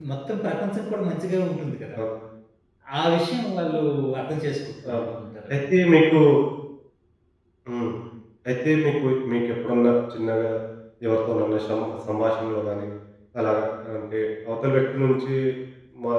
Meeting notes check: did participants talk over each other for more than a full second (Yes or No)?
No